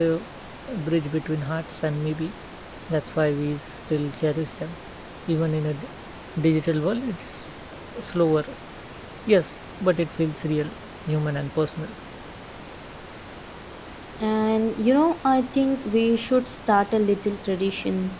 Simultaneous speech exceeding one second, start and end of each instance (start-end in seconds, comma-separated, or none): none